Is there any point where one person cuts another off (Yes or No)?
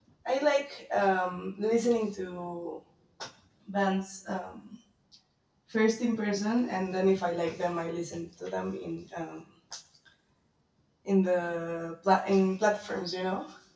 No